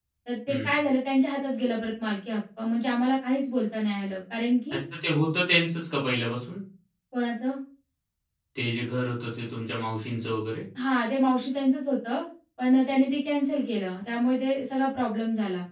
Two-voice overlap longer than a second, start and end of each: none

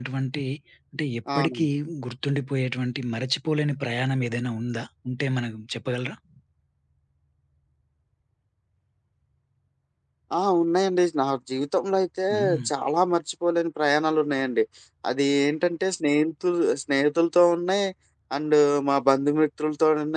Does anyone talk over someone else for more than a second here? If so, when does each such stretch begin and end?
none

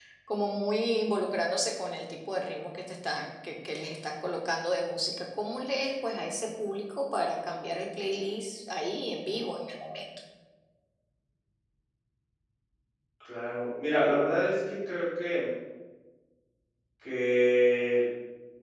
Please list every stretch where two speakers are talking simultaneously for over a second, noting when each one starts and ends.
none

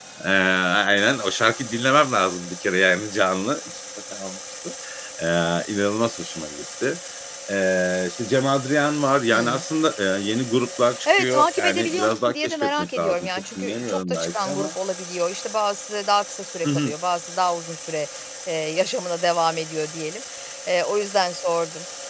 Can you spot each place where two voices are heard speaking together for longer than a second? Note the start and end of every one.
11.2-14.7

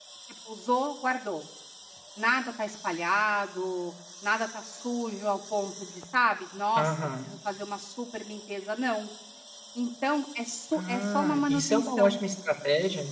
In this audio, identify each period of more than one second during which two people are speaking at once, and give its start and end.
10.7-12.2

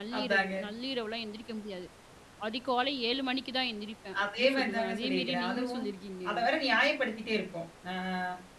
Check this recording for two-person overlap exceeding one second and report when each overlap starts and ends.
4.2-5.8

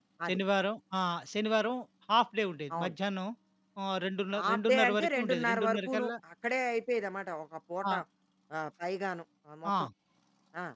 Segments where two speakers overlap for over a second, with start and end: 4.4-6.1

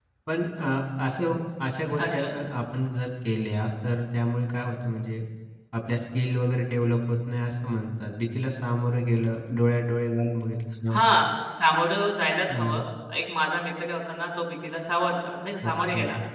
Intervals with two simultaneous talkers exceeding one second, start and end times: none

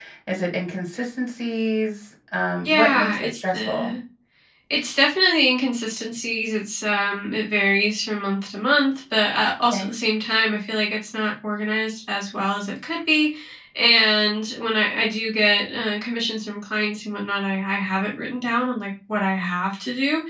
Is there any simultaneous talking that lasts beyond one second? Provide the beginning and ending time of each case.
2.6-3.9

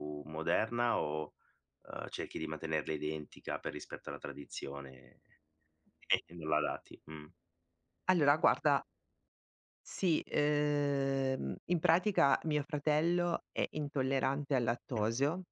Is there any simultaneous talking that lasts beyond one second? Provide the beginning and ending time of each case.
none

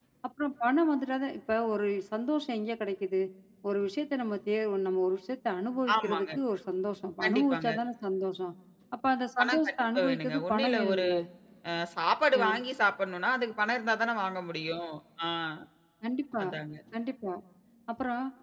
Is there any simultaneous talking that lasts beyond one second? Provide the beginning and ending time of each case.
9.4-11.0

